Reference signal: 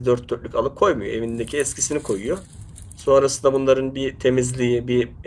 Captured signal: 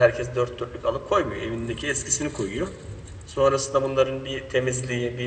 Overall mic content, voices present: echo only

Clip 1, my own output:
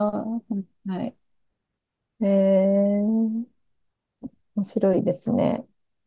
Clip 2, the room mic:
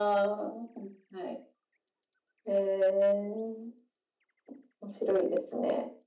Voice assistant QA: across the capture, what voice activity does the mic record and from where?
echo only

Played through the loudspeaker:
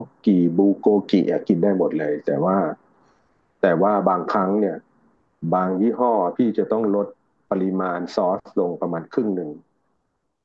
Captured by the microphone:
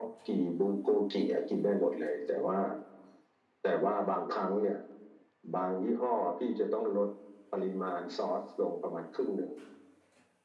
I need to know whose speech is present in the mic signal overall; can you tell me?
echo only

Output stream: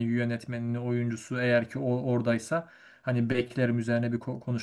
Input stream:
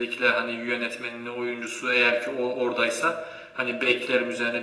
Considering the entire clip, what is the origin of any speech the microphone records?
echo only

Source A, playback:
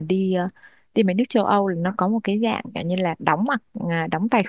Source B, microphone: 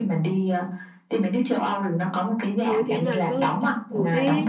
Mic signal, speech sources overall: both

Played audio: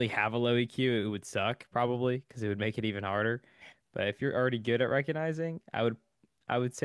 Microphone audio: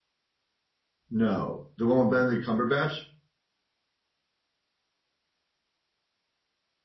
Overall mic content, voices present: user only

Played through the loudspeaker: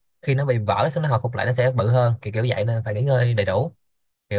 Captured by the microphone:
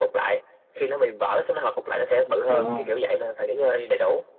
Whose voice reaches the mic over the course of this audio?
both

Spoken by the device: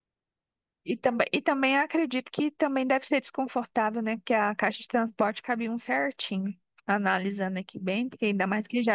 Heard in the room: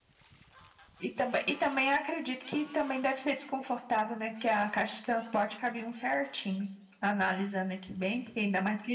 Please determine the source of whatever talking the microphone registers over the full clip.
echo only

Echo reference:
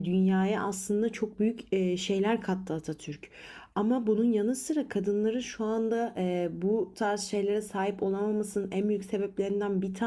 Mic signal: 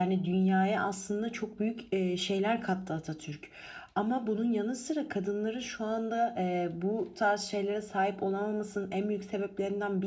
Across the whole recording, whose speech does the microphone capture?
echo only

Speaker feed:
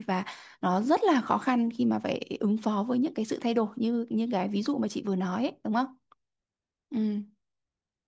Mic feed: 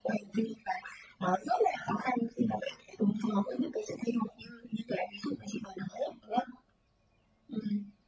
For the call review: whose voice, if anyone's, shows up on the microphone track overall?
echo only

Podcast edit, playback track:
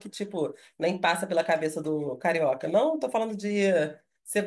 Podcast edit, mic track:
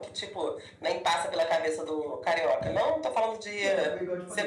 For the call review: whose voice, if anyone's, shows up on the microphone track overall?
both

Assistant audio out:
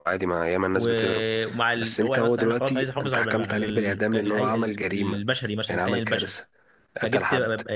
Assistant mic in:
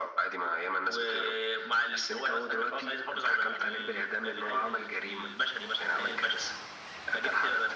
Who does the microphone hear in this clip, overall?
echo only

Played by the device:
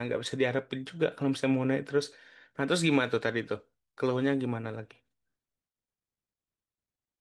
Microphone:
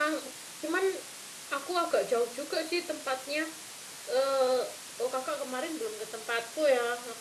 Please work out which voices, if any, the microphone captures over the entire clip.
user only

